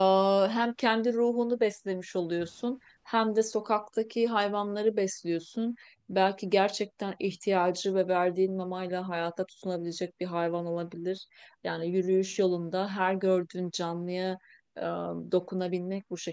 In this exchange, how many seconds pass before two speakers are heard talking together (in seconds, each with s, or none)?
none